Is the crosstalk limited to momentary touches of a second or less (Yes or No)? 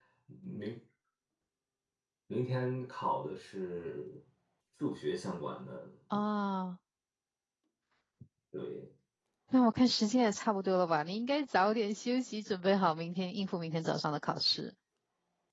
Yes